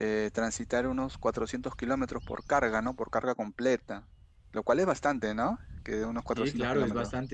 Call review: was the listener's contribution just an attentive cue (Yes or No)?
No